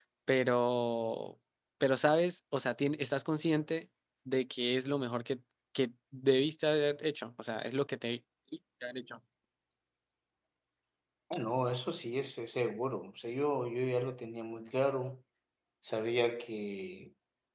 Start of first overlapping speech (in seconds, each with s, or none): none